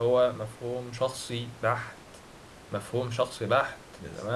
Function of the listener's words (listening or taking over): listening